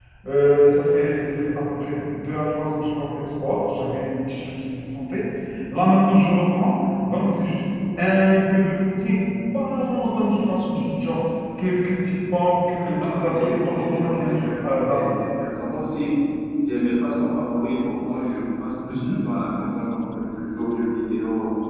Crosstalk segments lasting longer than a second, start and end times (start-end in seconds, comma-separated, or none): 12.8-15.2